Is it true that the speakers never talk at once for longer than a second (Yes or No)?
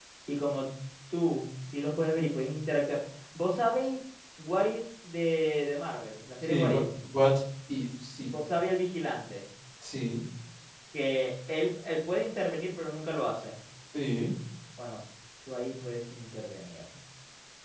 Yes